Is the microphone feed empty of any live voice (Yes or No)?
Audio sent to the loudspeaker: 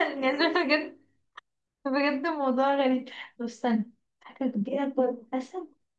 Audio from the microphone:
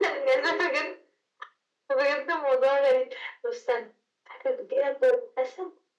Yes